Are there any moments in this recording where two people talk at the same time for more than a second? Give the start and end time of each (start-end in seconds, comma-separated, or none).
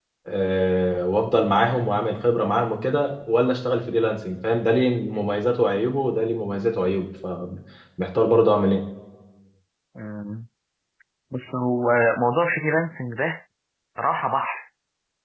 none